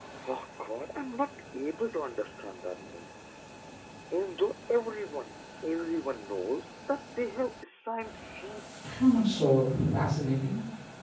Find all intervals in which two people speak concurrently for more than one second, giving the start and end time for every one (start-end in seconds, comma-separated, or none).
none